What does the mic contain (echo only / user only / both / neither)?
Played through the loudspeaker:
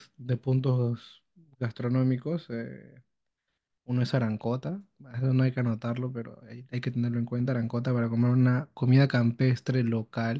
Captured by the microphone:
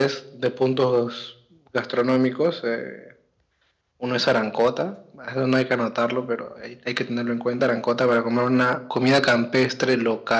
echo only